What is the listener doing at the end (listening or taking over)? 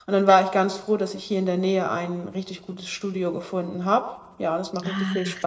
taking over